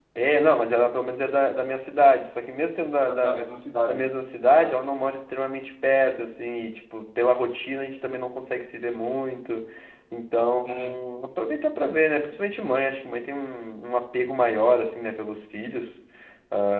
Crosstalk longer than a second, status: none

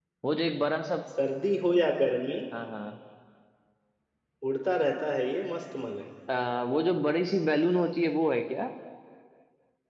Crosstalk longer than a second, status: none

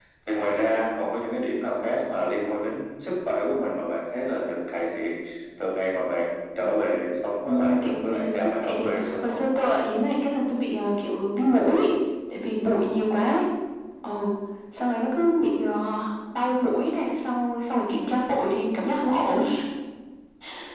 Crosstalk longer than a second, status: present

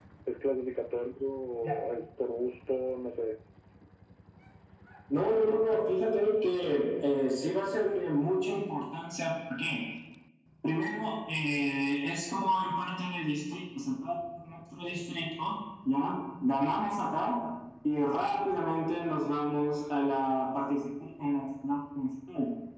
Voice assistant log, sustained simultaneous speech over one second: none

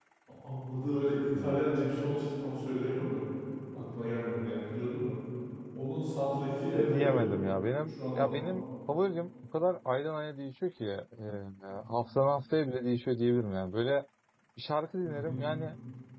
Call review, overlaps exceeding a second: none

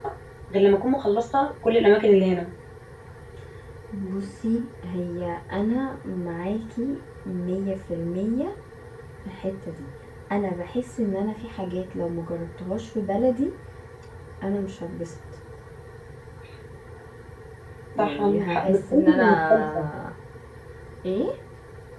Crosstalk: present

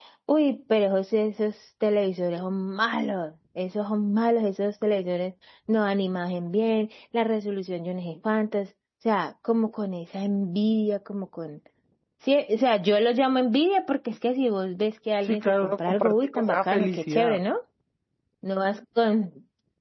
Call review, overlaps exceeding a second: present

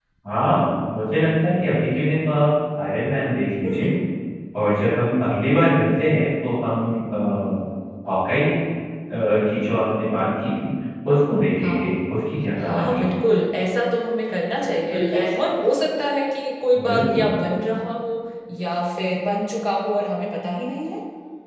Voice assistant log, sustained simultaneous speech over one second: none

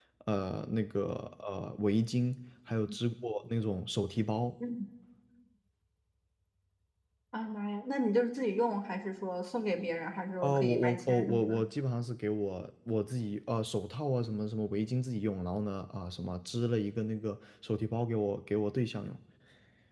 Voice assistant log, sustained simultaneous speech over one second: present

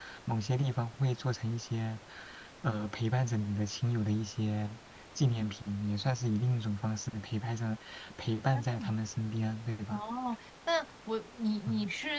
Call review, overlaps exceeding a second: none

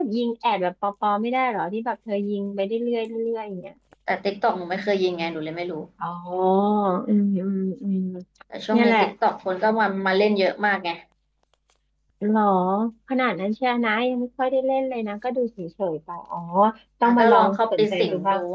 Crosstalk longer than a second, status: present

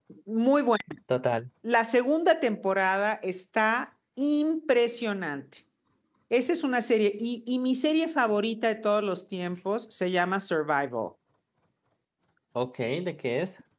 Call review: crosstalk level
none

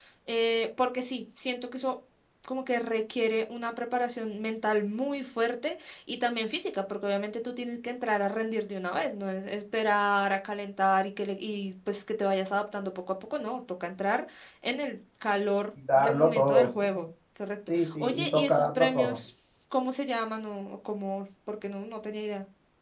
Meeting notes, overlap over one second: present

